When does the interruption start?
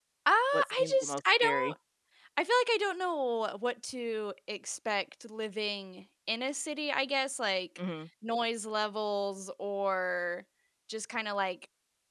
0.5 s

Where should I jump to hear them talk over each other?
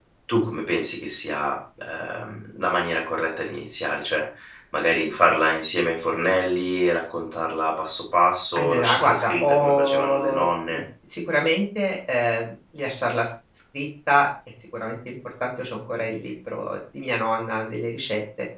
8.6 s

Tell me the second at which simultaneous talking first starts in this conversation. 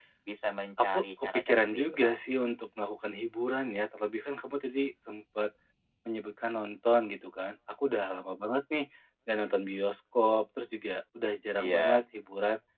0.8 s

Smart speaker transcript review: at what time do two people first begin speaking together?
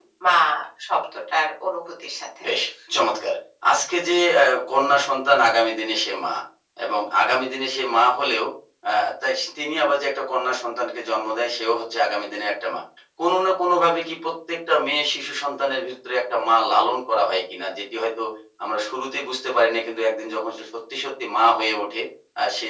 none

